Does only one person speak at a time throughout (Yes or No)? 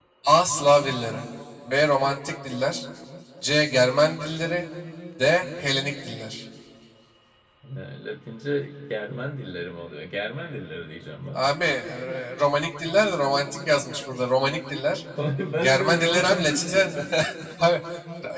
No